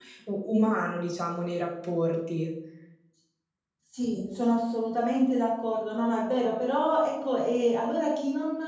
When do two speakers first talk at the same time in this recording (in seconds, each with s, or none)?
none